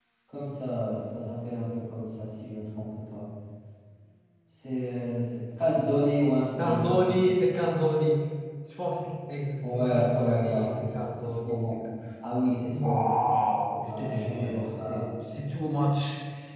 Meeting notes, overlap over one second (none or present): present